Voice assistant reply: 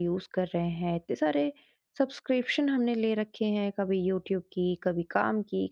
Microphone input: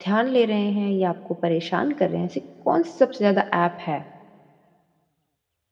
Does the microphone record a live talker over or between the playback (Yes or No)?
Yes